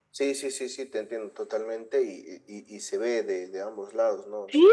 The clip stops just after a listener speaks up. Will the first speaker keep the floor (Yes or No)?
No